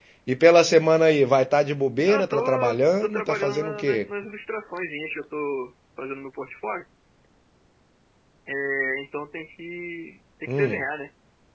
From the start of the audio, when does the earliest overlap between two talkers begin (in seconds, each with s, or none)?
2.1 s